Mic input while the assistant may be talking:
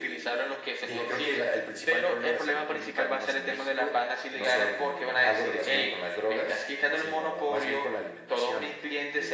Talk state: echo only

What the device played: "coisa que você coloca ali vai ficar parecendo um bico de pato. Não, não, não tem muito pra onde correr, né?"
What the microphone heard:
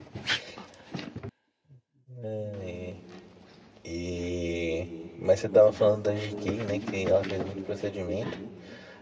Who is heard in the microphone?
user only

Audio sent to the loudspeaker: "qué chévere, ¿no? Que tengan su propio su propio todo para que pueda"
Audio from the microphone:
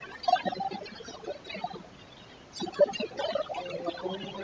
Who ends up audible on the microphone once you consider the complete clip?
both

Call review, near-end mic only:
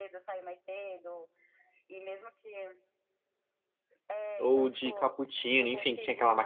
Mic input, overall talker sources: both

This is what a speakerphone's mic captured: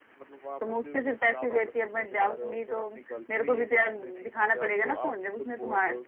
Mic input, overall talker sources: echo only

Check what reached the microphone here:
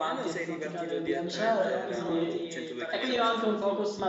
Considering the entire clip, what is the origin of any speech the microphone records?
both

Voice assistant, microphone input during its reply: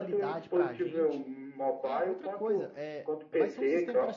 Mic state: both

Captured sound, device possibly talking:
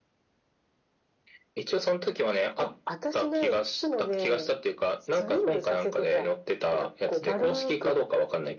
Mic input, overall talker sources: echo only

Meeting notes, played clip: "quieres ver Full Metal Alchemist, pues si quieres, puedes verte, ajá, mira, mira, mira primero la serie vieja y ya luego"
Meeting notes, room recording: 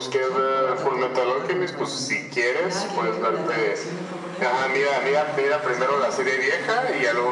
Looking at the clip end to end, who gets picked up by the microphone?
both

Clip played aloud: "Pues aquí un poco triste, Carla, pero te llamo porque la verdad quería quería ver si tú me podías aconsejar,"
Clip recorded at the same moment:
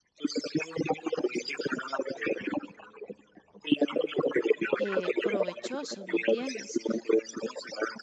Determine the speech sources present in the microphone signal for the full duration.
both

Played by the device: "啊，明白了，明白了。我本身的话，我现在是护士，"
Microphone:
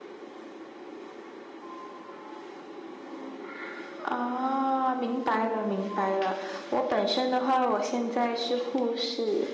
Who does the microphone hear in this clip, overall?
echo only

